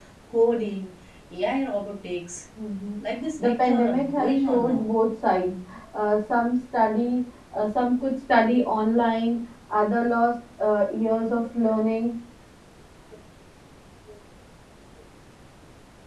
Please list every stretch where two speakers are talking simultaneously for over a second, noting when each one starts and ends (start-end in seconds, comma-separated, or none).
3.4-4.9